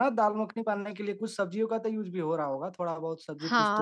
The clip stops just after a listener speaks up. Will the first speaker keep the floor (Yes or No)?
No